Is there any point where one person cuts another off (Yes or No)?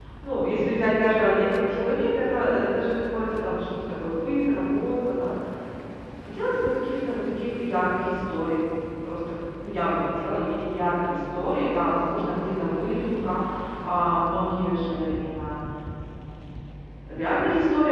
No